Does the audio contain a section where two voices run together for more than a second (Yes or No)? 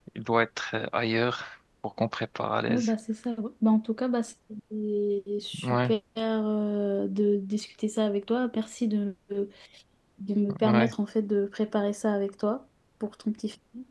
No